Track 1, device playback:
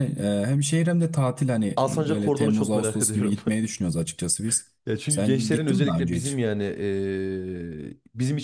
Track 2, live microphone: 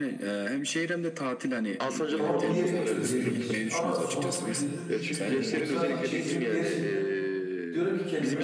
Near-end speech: present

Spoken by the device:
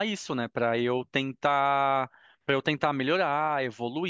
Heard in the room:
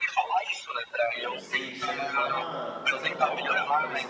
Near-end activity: present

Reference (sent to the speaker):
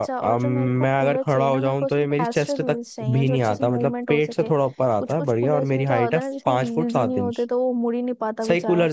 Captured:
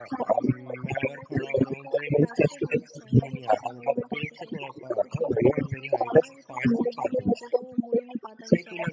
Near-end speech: none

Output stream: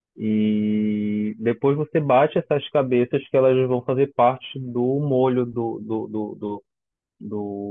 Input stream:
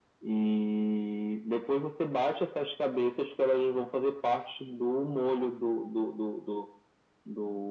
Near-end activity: none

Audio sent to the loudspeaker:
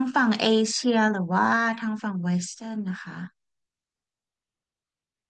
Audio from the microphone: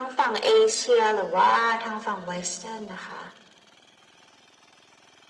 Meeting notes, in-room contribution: none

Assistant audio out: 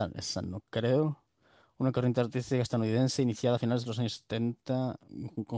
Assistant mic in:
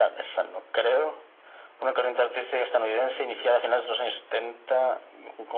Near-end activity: none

